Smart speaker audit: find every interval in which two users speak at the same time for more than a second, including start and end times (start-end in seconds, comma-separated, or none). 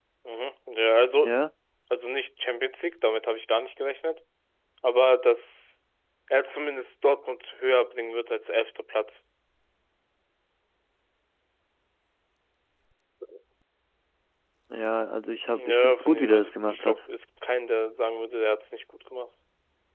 15.5-17.0